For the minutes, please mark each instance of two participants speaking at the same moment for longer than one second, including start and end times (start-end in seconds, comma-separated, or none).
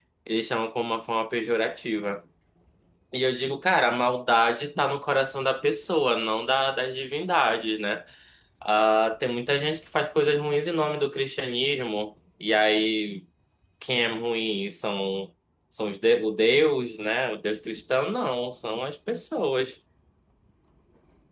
none